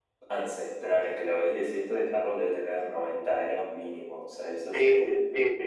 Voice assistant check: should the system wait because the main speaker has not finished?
No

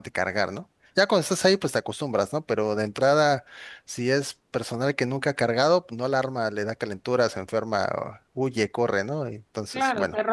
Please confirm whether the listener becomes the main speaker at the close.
Yes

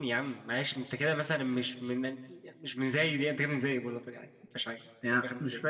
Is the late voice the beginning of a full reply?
Yes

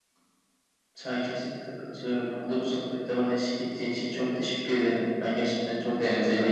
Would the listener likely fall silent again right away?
Yes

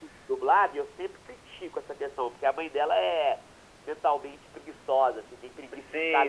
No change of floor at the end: Yes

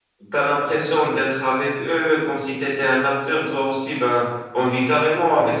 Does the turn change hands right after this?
No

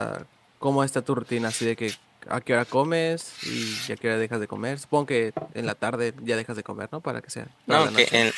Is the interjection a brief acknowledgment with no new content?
No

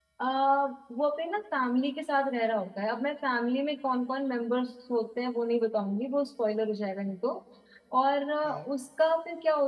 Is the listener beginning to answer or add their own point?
No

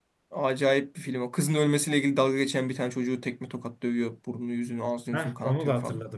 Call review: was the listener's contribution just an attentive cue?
No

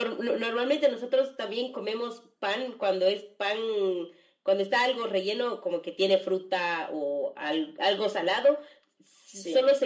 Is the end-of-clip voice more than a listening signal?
No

